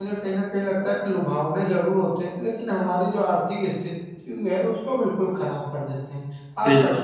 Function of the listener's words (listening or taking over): taking over